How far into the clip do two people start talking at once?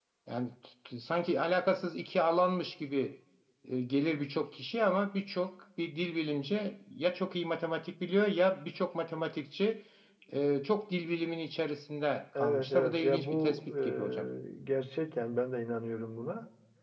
12.4 s

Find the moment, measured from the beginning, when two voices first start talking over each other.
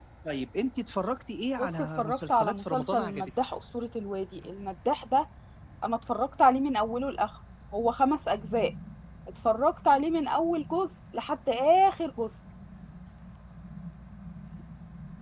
1.6 s

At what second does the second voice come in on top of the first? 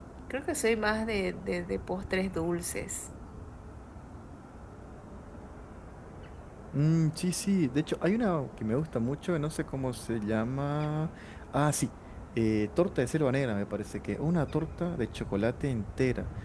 none

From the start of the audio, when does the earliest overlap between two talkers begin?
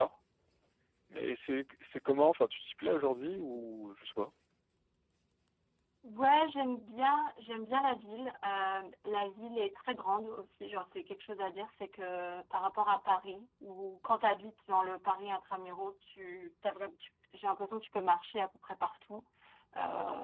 none

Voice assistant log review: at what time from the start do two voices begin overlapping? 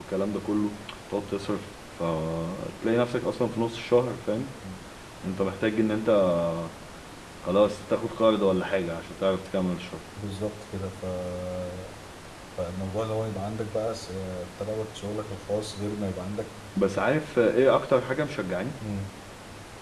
none

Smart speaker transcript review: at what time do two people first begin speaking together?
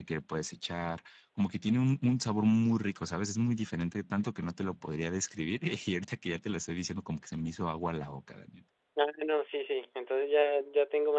none

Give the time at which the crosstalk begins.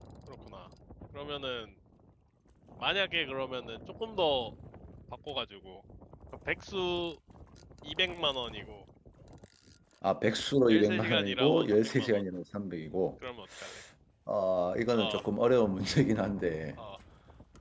10.7 s

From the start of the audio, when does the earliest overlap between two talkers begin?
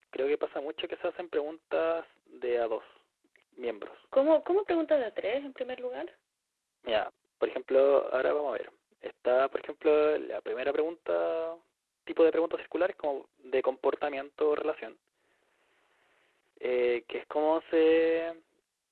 none

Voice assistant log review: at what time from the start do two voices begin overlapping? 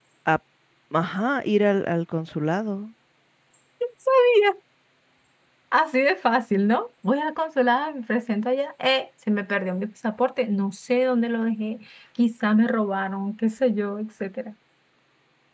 none

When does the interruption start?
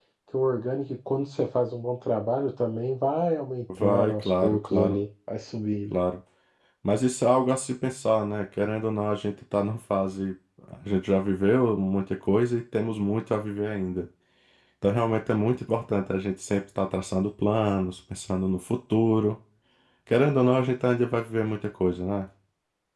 3.7 s

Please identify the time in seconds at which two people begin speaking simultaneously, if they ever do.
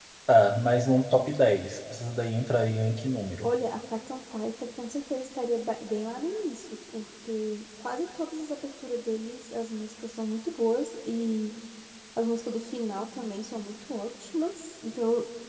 none

